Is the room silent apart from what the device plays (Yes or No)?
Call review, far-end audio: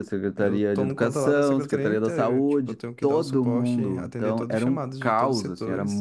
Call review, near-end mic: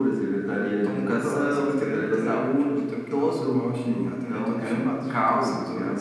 Yes